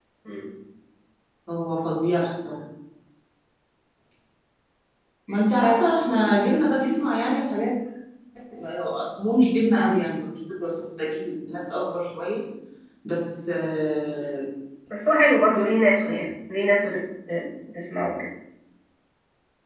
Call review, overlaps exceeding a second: none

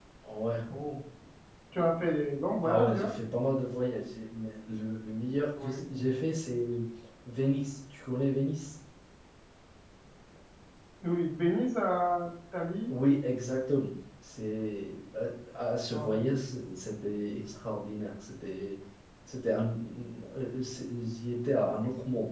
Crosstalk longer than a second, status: none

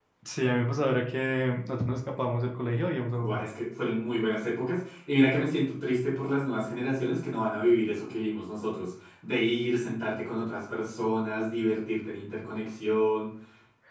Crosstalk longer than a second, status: none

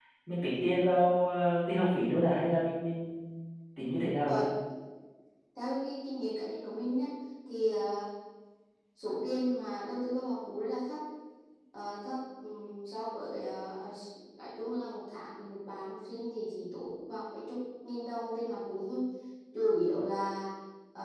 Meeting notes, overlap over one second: none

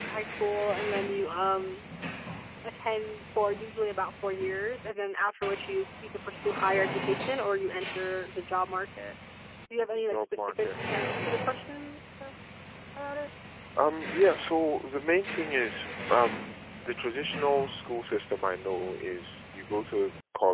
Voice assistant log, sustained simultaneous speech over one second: present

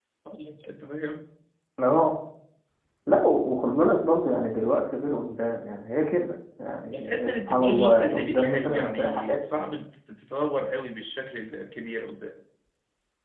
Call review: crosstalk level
present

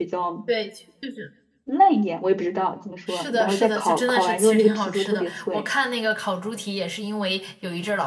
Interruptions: present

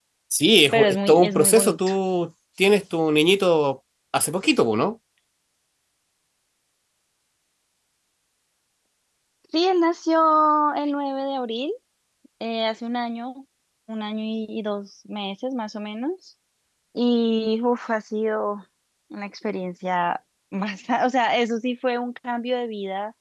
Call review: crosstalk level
present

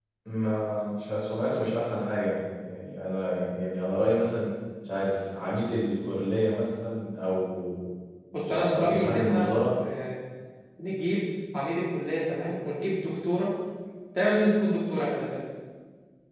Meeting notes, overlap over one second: present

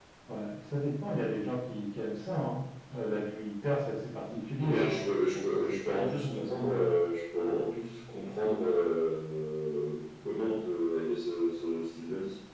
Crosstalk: present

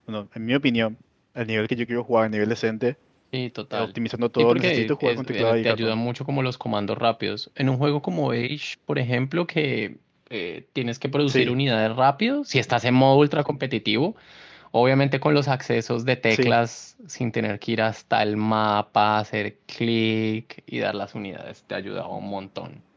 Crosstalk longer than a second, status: present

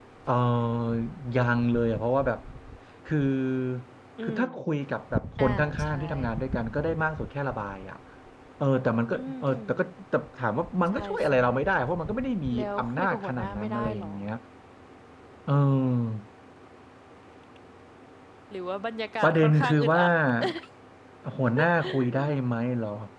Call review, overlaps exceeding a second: present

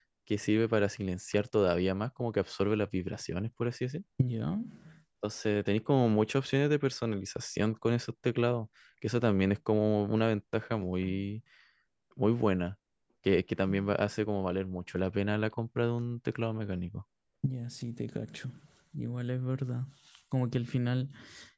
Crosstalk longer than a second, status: none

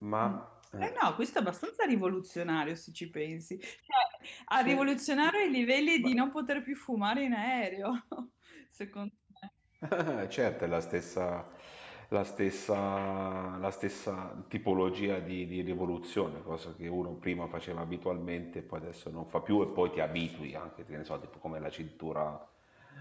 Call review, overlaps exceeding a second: none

